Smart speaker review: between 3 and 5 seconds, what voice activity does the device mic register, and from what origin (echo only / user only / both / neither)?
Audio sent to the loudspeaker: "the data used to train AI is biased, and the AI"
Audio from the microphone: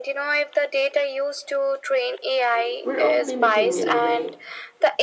both